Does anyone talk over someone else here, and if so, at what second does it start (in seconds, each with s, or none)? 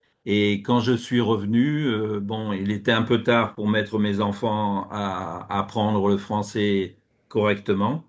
none